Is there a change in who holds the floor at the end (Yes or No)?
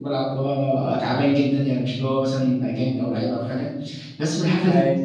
No